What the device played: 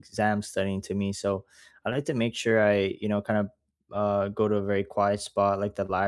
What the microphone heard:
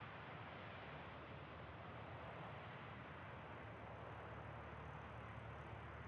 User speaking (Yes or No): No